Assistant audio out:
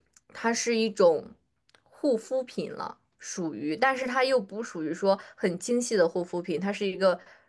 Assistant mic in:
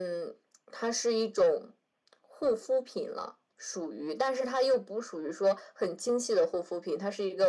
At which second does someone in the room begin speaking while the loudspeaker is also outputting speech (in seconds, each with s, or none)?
none